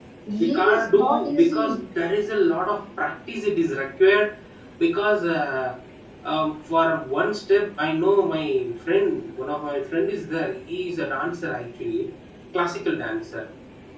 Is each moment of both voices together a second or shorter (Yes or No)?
No